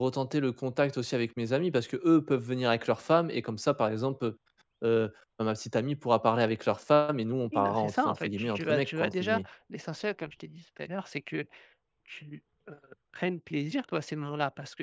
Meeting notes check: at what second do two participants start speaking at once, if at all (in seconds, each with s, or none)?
7.5 s